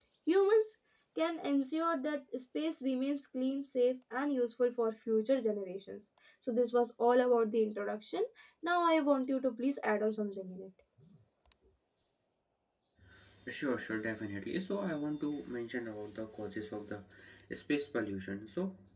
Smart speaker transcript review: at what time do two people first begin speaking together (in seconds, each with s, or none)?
none